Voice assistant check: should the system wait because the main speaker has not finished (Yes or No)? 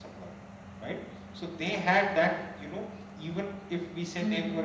Yes